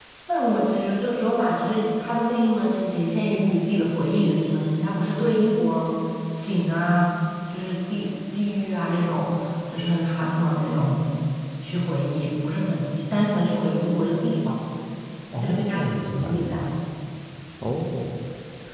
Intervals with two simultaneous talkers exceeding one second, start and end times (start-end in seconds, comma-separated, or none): 15.4-16.6